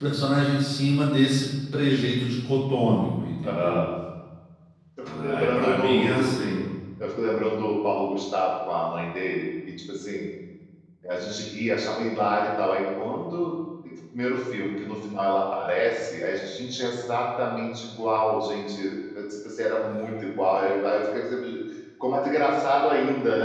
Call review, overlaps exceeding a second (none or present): present